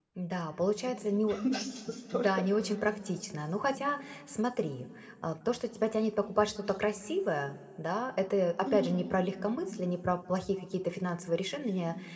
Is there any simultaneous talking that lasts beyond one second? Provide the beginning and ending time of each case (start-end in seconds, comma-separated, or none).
none